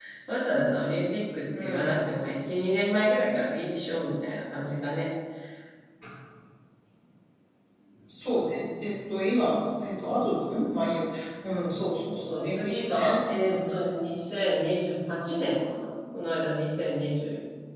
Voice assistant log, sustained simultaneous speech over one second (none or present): present